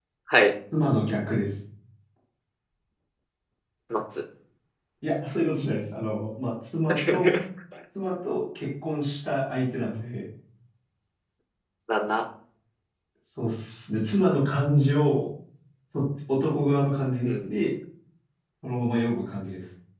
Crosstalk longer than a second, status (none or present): none